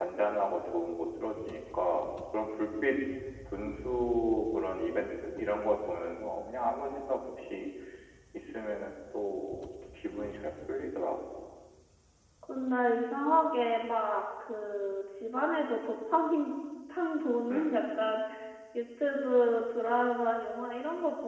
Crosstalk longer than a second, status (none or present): none